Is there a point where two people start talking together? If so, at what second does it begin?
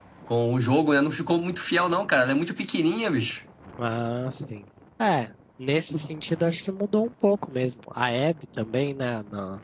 none

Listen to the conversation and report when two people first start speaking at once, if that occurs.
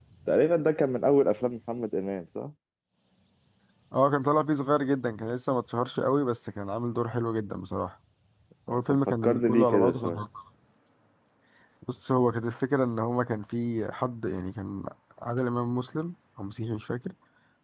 8.9 s

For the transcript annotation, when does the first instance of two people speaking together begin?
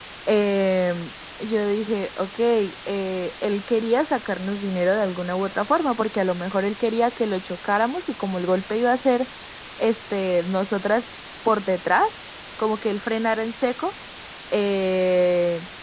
none

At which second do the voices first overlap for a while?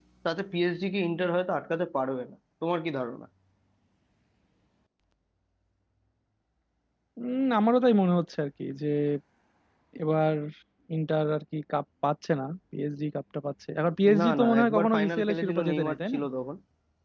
14.0 s

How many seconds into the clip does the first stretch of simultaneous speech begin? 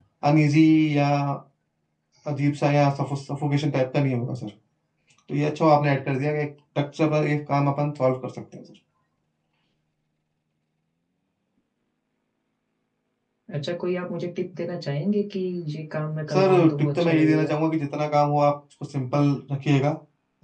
16.3 s

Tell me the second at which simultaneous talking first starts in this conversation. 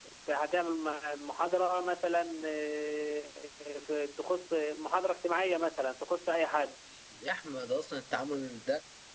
none

